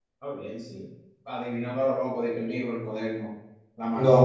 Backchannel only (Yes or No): No